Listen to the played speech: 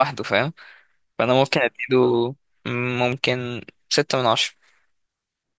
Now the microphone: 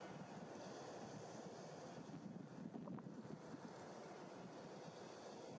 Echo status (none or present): none